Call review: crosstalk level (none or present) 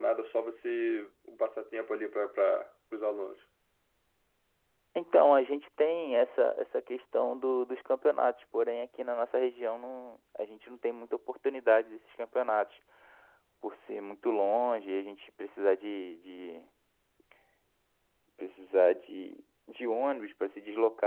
none